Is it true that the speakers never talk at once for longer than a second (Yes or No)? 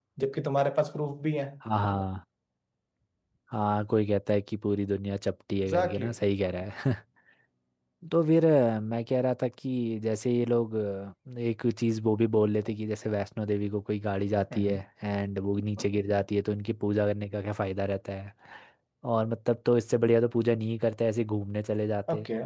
Yes